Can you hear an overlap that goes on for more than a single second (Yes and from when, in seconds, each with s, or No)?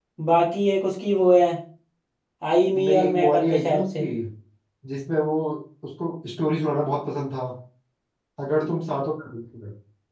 Yes, from 2.8 s